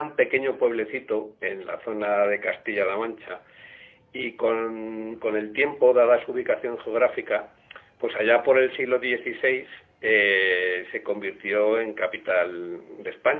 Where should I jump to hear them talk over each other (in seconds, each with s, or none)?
none